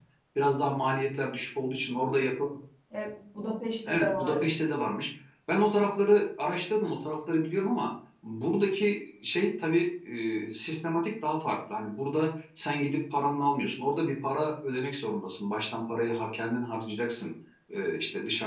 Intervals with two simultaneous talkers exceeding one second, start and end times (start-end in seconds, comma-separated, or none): none